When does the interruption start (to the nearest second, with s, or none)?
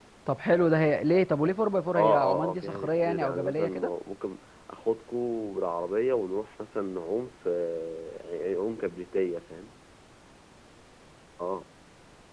2 s